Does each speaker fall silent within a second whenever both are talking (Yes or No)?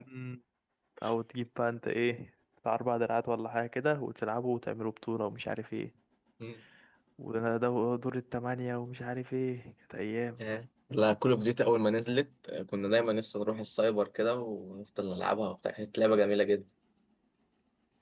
Yes